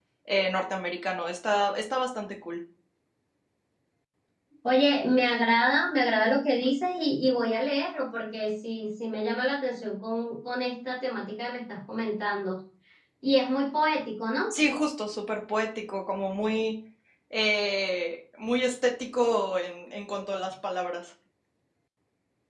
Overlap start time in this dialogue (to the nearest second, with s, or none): none